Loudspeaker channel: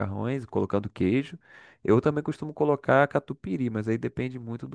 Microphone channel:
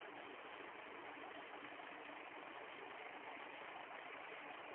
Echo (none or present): none